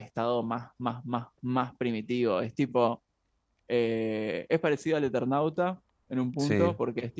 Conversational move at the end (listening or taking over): listening